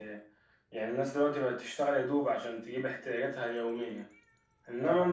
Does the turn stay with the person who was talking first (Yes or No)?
Yes